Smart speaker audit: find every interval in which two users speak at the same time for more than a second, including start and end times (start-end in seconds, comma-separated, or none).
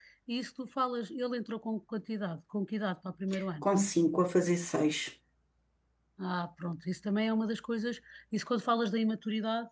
none